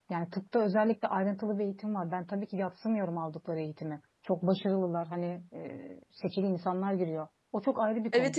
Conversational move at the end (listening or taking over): listening